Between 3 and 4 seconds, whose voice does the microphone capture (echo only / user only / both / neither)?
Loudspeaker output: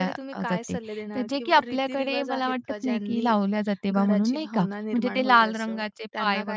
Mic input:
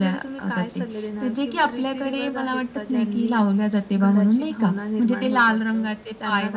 echo only